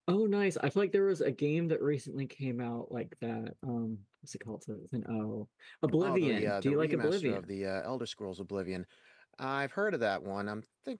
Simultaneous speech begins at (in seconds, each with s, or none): 6.0 s